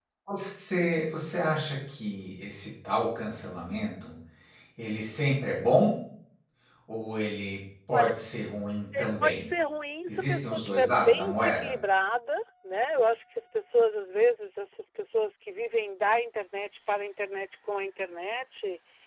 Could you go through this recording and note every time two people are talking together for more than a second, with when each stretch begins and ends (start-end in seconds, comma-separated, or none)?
10.1-11.7